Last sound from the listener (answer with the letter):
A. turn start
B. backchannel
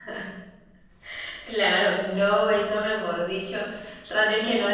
B